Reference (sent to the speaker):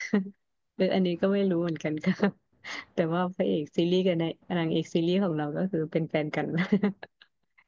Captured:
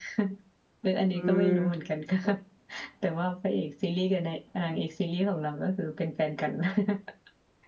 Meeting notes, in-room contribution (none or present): present